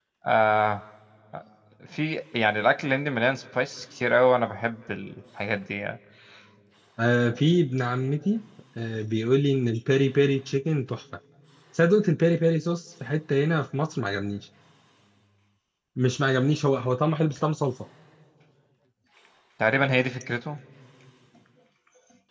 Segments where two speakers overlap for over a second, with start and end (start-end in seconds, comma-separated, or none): none